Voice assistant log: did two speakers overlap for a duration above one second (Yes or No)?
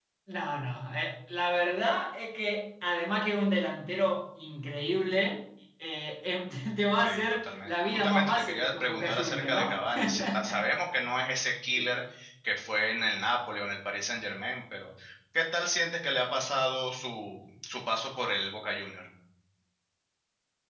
Yes